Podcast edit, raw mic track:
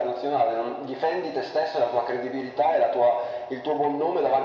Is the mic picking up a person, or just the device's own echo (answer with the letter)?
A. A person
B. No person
B